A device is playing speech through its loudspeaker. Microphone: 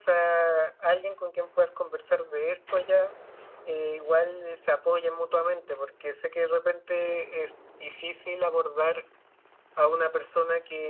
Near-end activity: none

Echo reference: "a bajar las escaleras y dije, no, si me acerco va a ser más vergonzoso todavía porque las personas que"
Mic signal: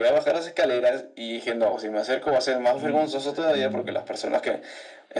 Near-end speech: present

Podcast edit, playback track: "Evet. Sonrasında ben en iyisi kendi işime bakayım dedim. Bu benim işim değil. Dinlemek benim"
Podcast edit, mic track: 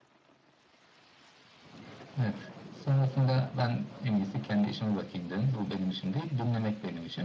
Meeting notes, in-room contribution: none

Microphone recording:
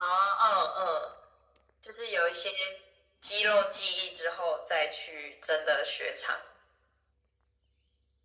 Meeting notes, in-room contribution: none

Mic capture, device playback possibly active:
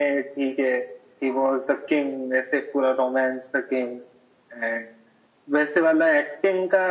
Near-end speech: none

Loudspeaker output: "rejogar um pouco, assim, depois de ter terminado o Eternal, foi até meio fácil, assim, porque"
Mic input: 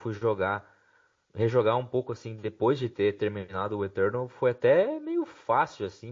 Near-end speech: none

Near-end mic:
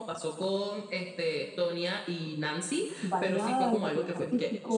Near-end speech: present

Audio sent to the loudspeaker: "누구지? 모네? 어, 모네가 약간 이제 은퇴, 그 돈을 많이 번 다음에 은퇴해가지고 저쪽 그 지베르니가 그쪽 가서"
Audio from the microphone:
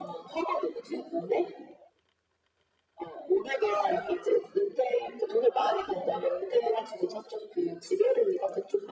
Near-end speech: none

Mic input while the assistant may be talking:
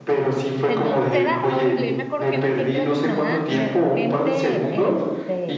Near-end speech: present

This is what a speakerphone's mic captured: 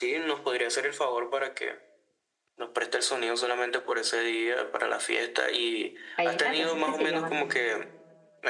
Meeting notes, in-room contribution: present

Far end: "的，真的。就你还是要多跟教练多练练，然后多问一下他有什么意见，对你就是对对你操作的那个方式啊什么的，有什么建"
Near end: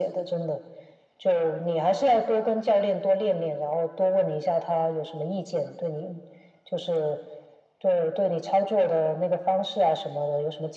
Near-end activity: none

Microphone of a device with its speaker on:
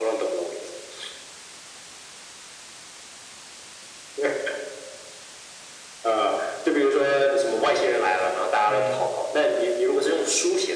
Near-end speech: present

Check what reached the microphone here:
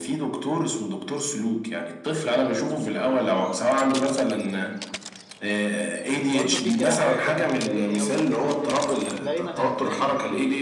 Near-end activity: present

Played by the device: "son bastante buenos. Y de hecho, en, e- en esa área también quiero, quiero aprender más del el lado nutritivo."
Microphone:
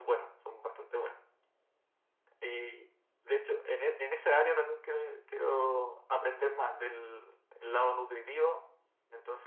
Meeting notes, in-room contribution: none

